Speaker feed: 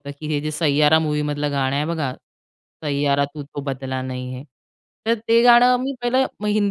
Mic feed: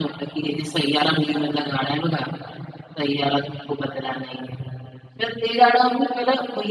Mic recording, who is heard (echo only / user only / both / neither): echo only